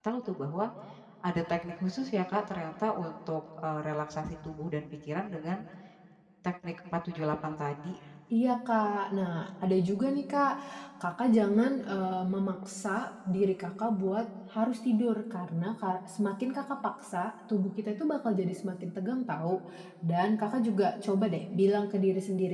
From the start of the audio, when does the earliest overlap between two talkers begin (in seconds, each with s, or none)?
none